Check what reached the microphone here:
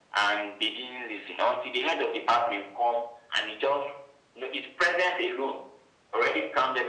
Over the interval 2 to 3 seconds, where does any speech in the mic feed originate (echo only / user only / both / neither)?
echo only